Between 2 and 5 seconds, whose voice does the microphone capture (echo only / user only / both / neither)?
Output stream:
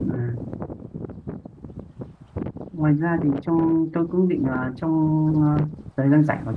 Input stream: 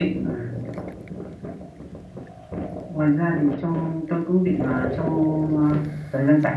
echo only